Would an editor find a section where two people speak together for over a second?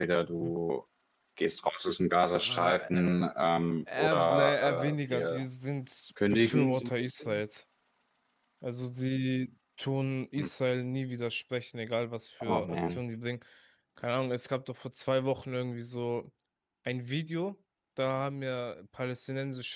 Yes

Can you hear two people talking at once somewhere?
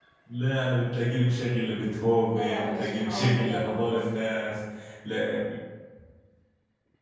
Yes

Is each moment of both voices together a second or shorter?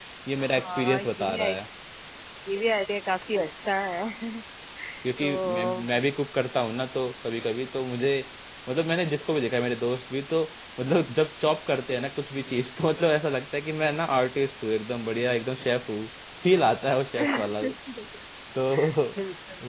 No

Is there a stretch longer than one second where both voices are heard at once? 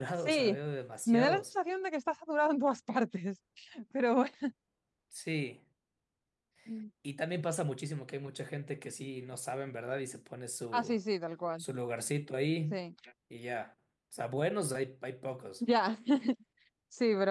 No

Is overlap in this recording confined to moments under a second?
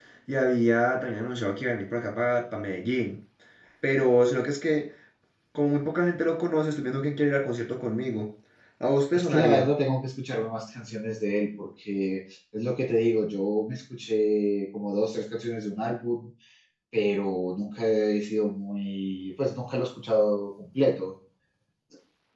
Yes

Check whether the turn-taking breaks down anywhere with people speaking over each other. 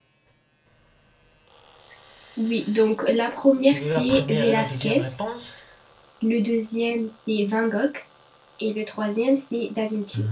Yes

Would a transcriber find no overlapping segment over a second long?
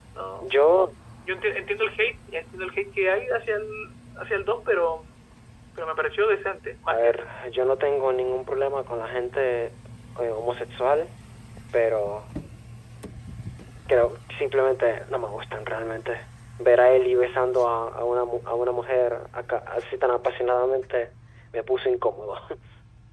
Yes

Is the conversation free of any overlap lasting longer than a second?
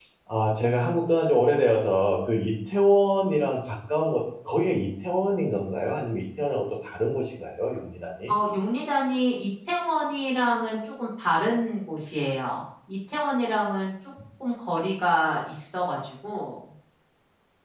Yes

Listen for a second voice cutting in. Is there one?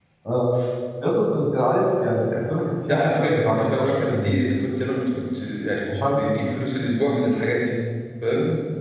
Yes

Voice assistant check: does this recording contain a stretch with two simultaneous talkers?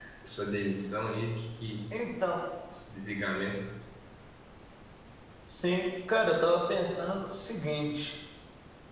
No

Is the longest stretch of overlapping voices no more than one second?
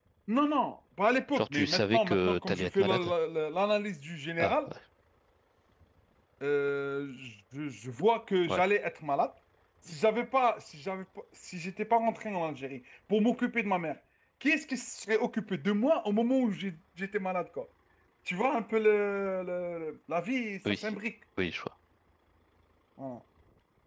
No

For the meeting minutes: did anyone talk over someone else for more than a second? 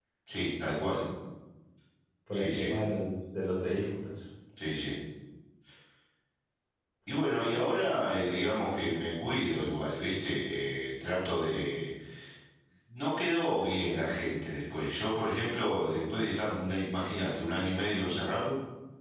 No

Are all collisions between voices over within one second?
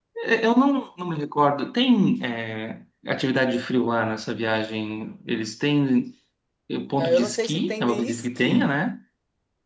No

